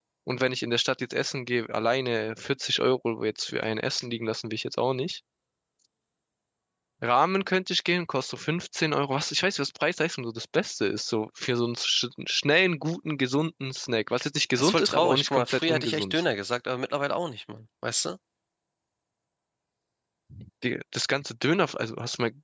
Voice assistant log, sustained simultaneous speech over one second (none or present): present